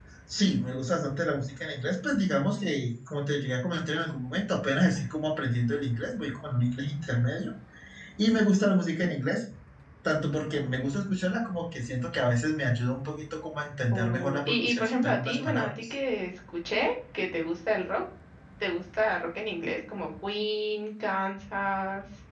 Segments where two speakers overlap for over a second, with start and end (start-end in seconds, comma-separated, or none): 13.9-15.9